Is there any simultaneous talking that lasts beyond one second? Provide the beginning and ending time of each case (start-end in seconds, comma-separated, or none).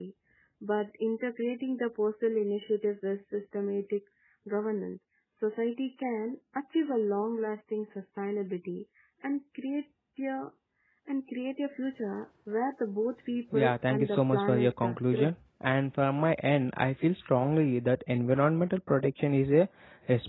13.5-15.3